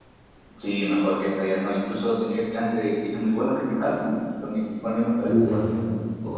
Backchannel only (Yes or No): No